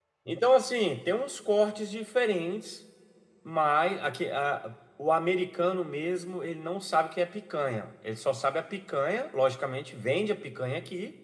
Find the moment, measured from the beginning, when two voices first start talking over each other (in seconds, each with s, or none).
none